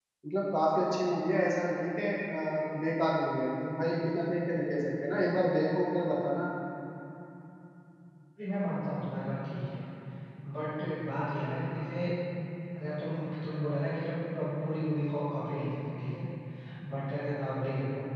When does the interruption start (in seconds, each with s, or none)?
none